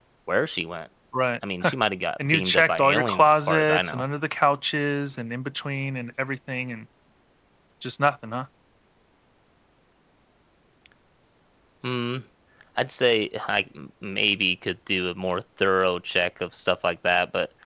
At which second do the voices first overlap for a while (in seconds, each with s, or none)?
2.2 s